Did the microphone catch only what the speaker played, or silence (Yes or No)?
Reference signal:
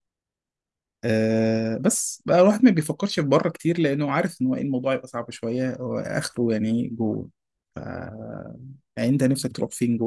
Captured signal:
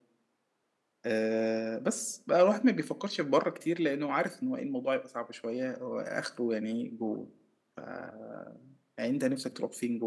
Yes